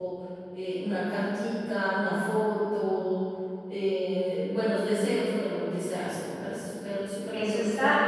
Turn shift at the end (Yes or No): Yes